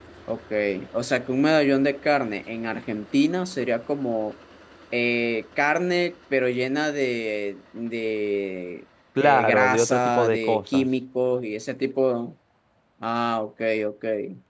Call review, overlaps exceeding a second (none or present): present